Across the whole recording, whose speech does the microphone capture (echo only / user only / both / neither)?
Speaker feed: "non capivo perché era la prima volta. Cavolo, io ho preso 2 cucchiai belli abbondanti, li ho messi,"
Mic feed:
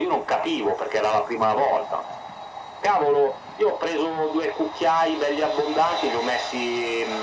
echo only